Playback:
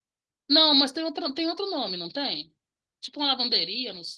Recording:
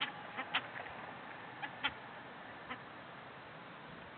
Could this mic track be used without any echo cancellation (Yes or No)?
Yes